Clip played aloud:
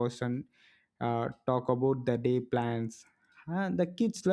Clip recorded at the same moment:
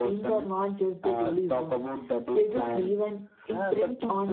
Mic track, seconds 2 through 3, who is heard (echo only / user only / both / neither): both